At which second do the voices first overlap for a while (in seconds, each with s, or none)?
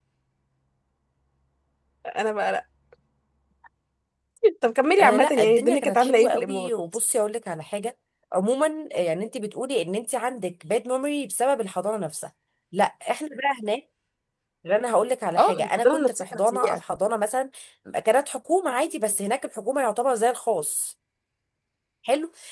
5.0 s